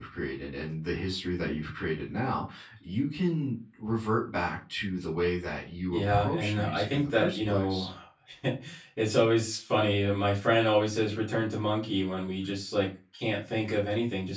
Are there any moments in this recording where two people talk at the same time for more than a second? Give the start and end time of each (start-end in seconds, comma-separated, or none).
5.9-7.9